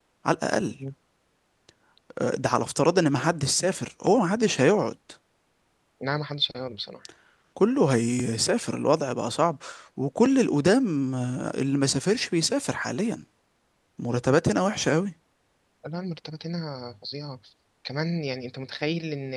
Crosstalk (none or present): none